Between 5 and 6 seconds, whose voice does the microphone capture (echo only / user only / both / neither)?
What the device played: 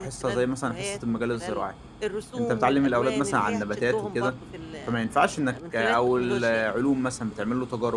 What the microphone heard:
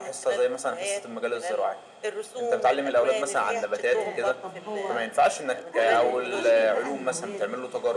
both